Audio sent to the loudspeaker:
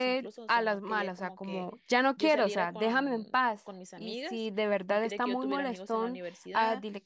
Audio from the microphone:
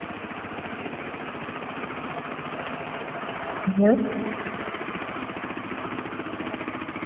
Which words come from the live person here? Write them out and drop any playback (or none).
Ujú.